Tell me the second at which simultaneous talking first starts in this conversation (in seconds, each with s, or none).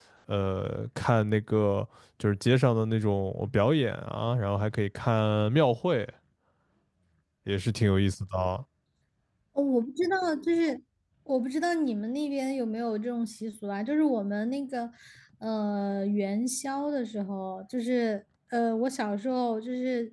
none